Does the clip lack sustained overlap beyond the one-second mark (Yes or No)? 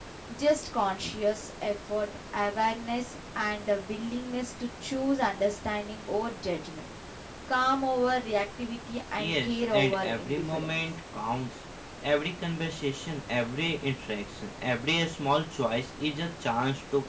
No